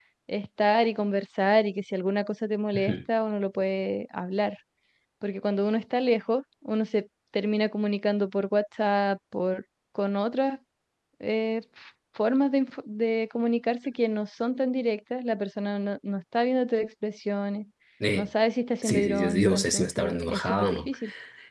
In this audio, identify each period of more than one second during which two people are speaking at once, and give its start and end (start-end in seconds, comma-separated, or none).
18.8-20.9